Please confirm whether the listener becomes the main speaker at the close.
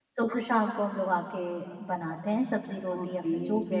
Yes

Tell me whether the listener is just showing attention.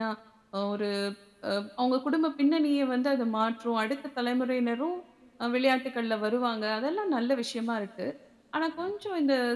Yes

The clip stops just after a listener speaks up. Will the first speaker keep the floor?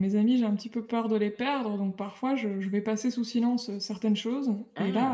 Yes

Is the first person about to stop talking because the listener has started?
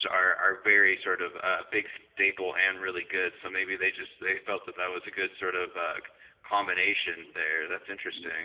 Yes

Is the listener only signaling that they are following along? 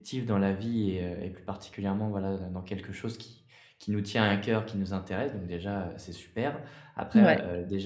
Yes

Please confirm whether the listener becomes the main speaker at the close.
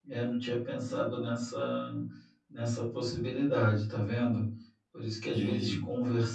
No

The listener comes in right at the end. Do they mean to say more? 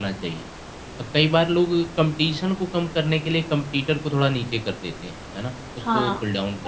Yes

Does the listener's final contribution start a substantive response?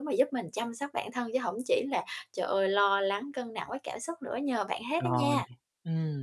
Yes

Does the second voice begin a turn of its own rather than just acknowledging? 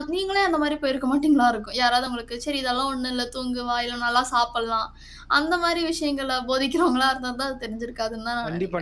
Yes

